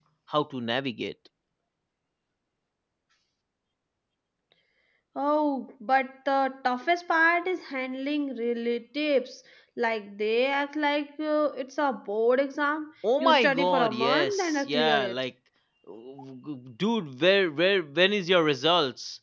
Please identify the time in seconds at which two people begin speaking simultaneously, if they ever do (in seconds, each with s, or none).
13.0 s